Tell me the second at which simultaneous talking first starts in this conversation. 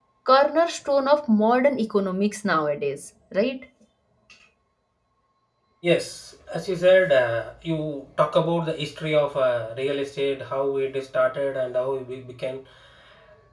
none

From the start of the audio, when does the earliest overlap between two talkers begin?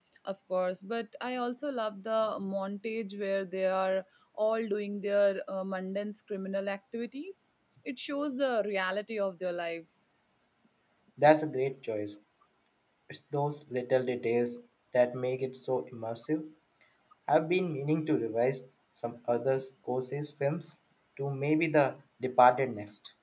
none

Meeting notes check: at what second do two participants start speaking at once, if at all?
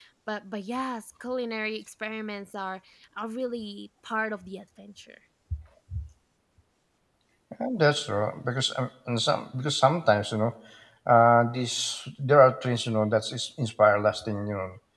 none

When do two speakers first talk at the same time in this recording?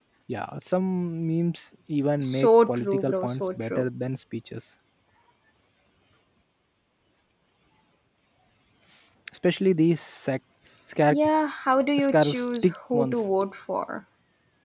2.2 s

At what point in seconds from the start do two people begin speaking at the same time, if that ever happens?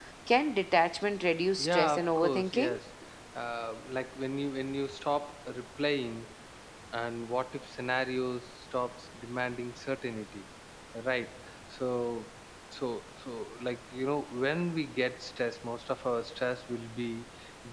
1.6 s

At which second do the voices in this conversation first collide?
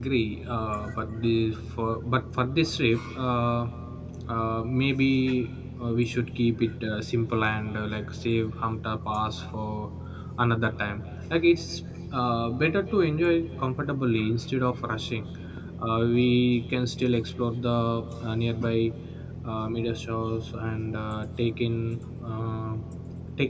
none

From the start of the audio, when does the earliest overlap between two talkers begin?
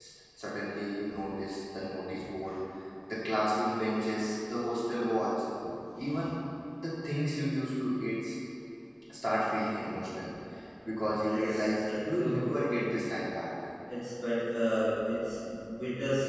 11.2 s

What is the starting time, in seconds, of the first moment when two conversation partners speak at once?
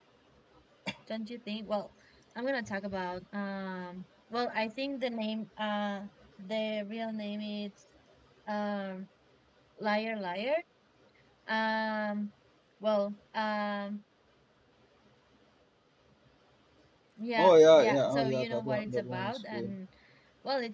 17.4 s

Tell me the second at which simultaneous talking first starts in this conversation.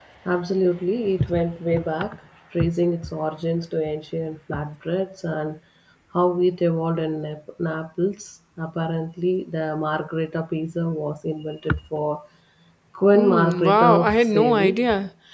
13.1 s

